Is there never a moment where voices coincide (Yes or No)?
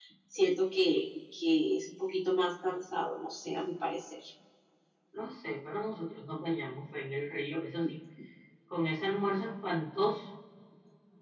Yes